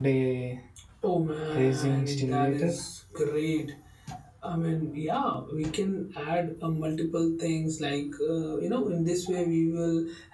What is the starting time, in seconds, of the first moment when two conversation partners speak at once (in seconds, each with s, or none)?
1.5 s